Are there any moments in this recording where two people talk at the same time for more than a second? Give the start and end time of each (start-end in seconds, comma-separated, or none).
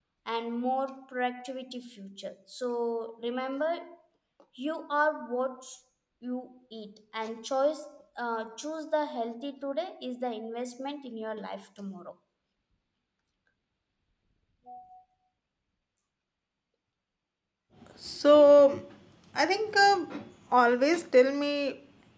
none